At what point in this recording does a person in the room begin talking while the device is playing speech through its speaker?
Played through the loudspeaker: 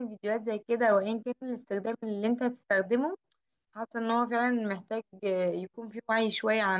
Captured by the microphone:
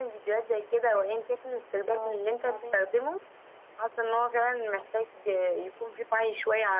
1.9 s

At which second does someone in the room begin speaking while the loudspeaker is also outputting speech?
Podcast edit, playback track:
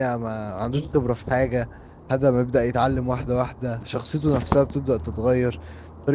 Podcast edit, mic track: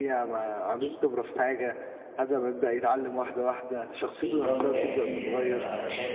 4.2 s

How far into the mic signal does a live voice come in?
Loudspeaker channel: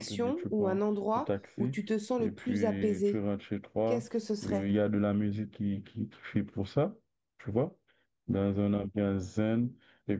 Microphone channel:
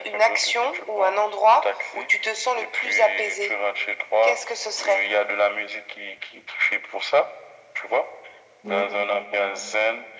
8.6 s

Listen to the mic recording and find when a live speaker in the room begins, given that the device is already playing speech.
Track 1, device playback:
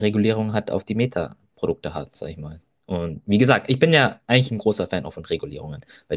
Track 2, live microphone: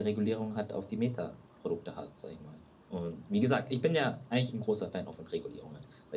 none

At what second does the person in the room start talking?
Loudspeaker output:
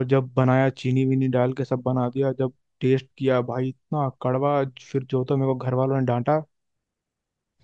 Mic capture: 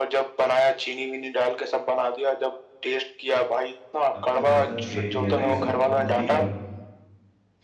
4.1 s

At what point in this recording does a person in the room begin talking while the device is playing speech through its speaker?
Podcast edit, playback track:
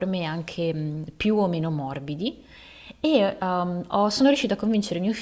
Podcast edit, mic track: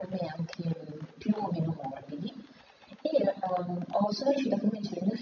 none

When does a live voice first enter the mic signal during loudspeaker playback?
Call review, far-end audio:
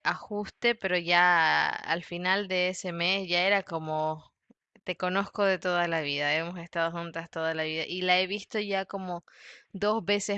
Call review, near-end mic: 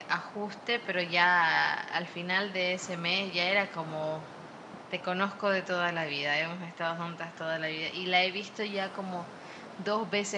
none

